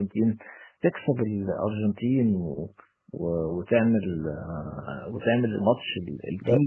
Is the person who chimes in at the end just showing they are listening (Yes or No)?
No